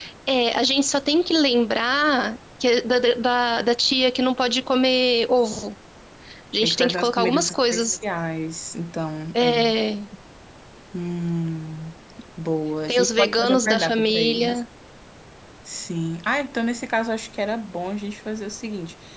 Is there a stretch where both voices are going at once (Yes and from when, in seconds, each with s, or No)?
Yes, from 6.6 s